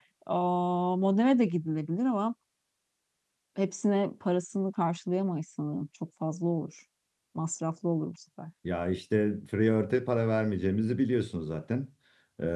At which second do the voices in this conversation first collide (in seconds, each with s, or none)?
none